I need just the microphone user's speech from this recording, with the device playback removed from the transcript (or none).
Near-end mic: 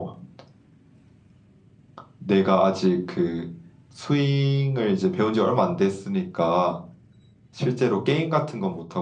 none